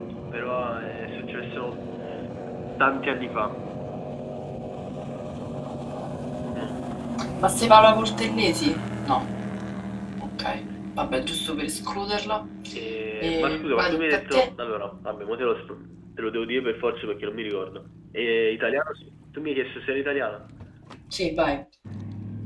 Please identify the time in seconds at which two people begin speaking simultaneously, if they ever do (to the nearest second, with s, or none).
13 s